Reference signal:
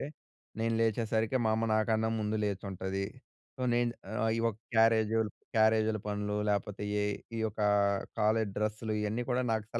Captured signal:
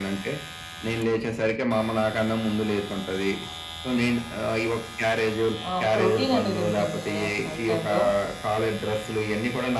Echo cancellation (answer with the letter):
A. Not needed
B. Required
B